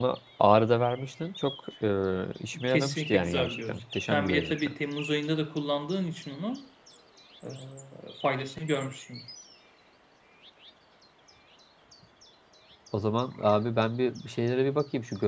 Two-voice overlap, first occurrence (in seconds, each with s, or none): 2.7 s